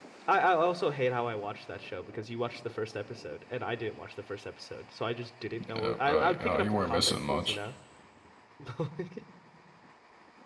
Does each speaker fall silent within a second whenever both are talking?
No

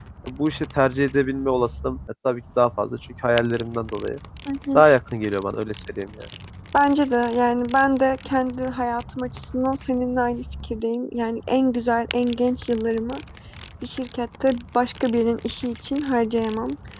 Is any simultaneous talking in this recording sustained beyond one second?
No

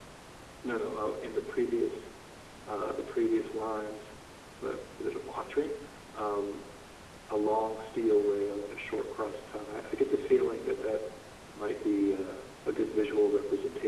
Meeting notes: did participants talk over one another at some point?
No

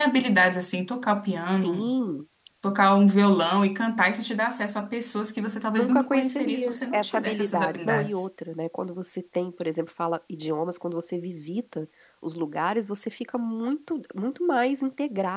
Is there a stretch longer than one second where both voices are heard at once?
Yes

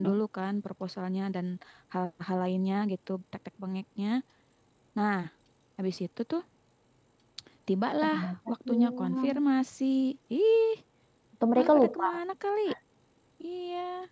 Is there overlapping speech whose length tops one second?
Yes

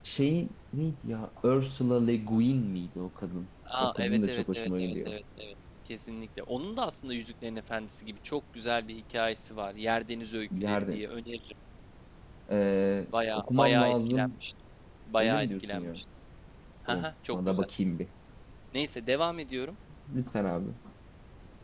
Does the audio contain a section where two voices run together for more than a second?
Yes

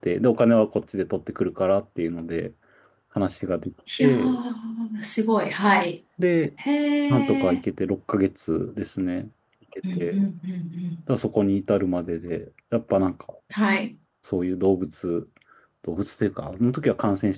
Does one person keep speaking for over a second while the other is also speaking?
No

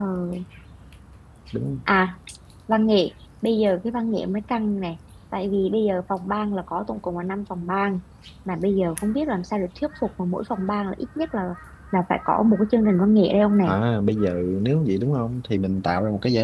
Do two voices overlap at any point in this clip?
No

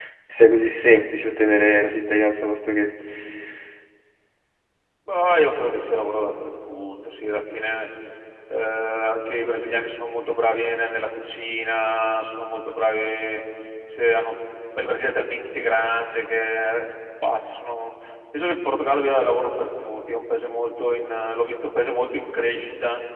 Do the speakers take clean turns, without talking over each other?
Yes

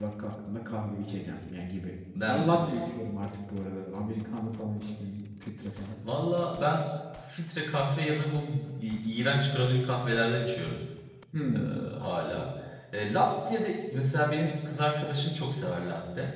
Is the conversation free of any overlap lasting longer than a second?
Yes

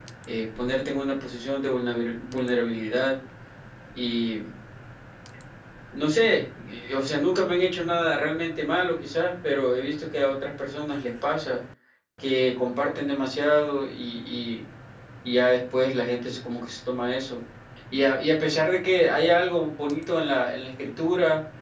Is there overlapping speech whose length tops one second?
No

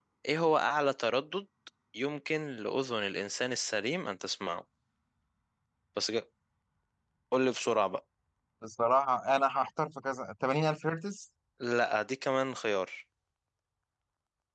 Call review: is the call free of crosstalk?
Yes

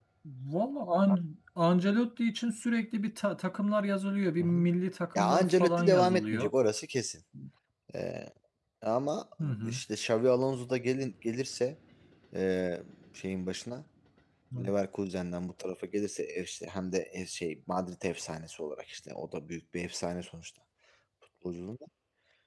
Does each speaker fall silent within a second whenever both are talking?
No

